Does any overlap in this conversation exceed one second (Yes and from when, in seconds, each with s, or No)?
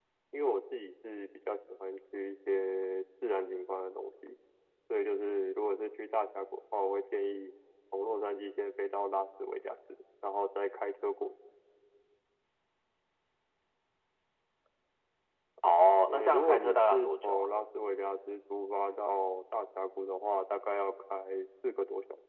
Yes, from 16.1 s